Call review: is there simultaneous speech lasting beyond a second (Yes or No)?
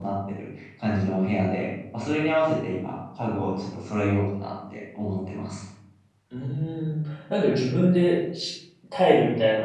No